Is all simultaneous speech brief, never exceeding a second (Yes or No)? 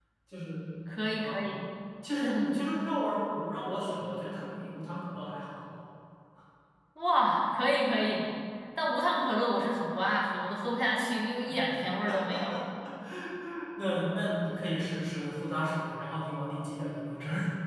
Yes